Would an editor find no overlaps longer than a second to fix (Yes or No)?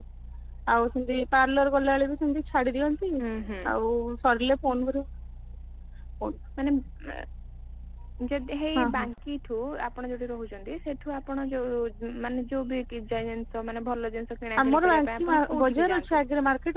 No